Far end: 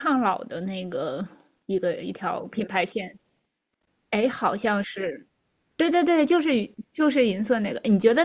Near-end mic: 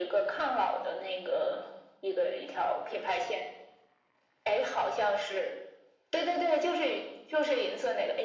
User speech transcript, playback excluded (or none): none